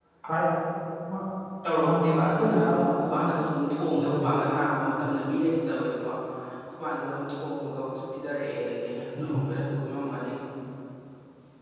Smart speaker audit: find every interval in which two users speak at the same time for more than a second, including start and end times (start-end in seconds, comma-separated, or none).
1.8-3.4